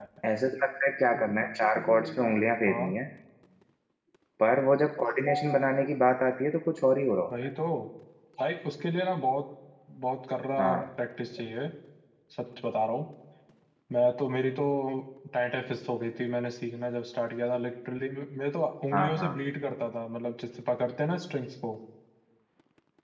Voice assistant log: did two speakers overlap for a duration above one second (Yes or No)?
No